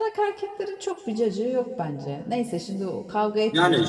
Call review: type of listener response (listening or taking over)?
taking over